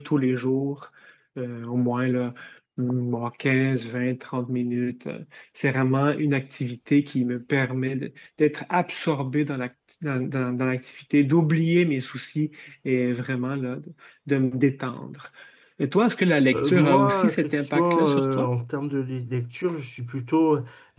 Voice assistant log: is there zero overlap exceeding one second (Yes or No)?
No